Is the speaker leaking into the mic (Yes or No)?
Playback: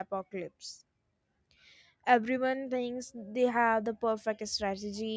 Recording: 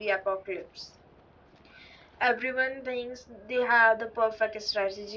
Yes